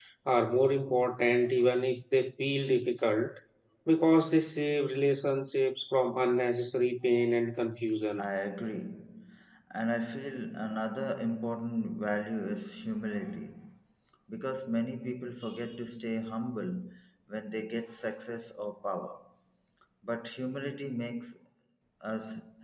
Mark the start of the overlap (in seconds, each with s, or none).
none